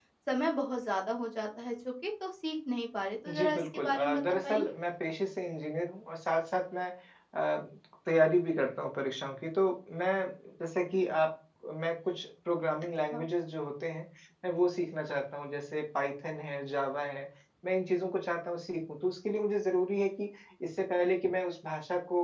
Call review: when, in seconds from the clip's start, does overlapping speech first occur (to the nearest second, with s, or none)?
3 s